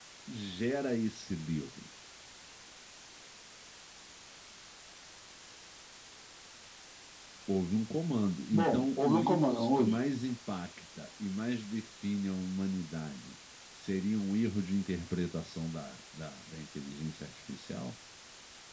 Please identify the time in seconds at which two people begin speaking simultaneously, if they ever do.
9 s

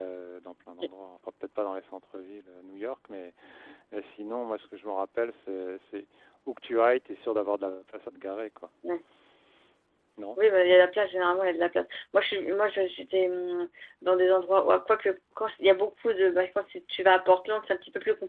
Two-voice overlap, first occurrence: none

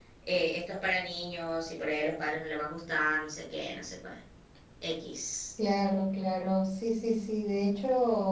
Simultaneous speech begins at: none

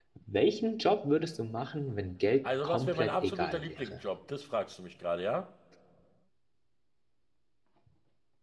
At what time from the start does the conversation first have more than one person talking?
2 s

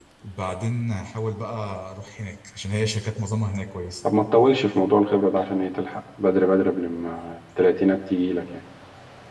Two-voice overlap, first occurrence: none

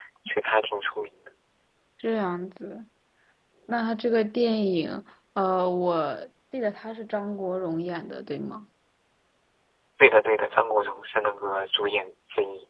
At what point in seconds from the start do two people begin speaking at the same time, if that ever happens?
none

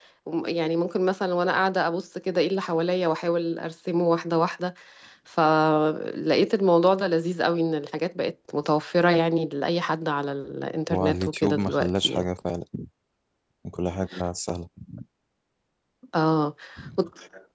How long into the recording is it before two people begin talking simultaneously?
11 s

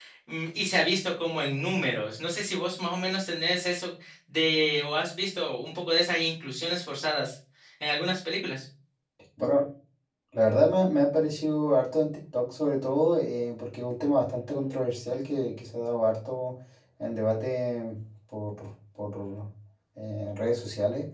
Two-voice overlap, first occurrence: none

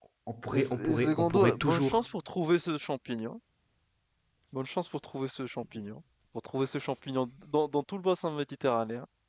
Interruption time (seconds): 1 s

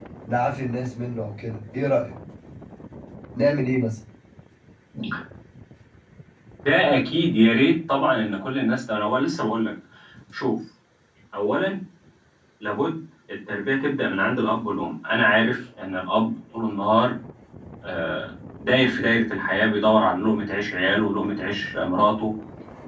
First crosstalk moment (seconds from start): none

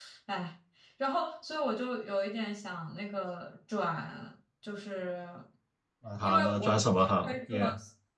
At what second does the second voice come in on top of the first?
6 s

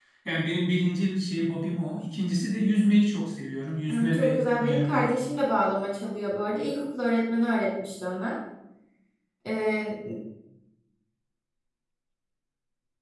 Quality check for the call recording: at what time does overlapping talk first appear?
4 s

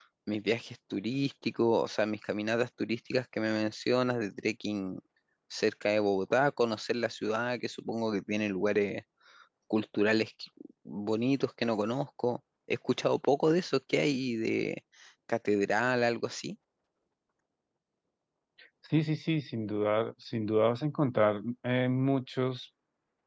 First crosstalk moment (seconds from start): none

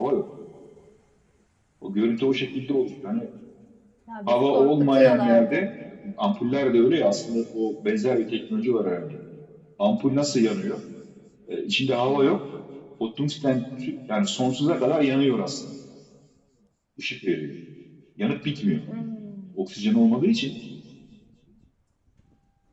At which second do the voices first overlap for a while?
4 s

